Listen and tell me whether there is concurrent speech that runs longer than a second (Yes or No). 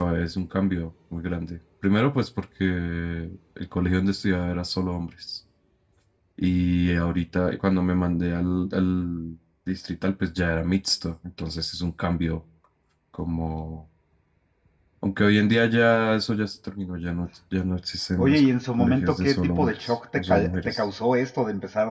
Yes